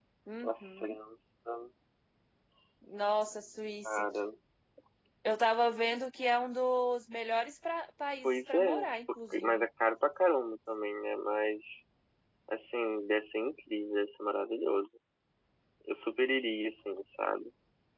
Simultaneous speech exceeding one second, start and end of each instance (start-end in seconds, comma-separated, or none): 8.2-9.7